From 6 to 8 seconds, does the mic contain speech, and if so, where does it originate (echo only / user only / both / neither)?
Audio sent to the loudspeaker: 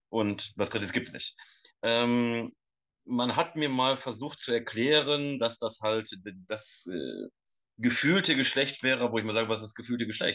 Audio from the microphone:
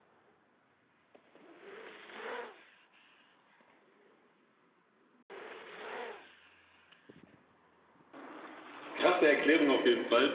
neither